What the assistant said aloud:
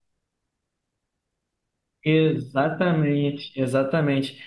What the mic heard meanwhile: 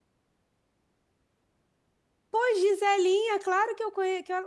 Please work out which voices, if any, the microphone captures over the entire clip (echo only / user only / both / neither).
user only